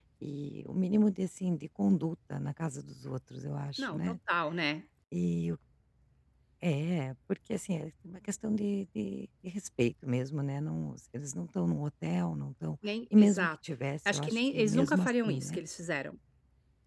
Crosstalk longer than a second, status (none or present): present